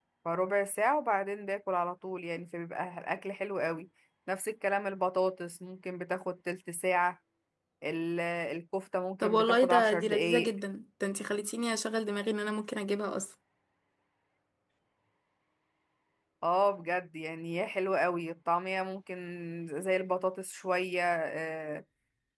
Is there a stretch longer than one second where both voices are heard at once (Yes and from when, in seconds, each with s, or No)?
Yes, from 9.2 s